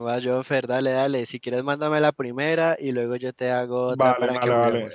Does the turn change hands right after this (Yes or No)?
Yes